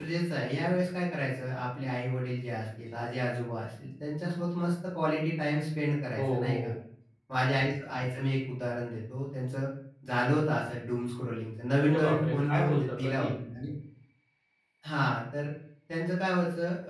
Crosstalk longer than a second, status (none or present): present